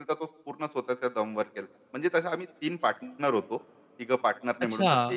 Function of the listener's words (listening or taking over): taking over